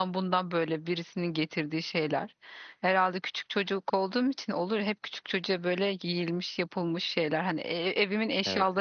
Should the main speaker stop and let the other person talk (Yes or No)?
No